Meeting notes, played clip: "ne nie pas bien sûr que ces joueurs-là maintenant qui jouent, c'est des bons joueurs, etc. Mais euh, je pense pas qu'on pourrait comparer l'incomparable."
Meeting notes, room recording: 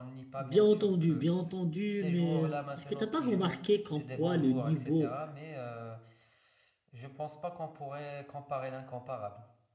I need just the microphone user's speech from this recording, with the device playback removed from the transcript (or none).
Bien entendu, bien entendu, mais est-ce que tu n'as pas remarqué comme quoi le niveau